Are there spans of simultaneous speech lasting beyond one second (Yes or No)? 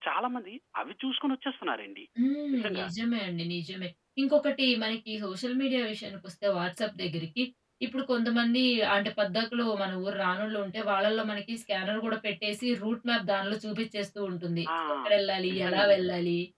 No